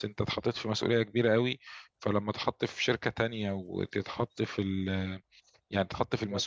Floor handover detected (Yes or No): No